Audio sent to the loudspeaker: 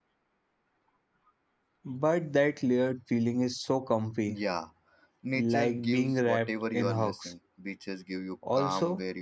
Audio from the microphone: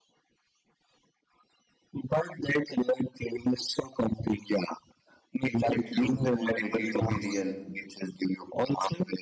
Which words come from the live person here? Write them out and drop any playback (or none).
It looked too pretty to be real.